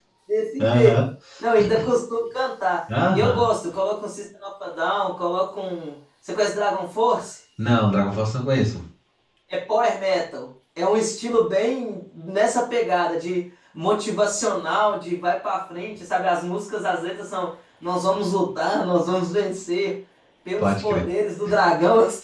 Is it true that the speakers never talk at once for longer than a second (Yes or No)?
Yes